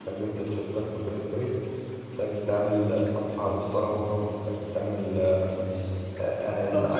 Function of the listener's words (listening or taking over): taking over